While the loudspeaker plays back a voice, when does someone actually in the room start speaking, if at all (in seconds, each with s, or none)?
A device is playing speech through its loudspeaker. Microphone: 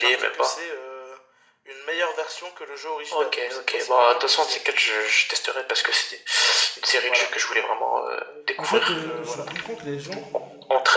8.6 s